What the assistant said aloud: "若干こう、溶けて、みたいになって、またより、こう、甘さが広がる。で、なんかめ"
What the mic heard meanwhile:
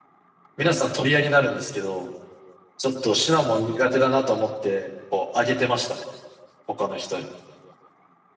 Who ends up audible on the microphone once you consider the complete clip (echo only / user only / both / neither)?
user only